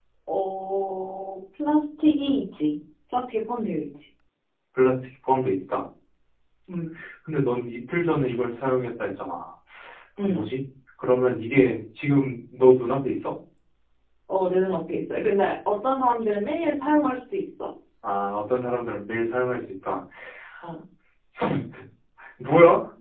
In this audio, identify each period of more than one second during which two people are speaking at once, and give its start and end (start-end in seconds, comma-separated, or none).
none